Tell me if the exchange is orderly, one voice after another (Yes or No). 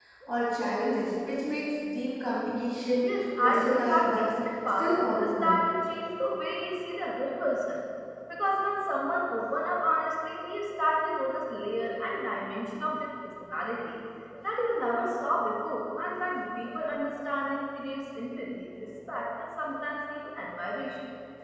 No